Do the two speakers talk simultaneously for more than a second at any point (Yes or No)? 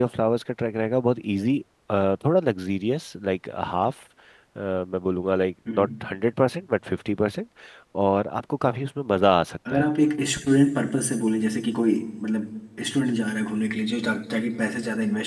No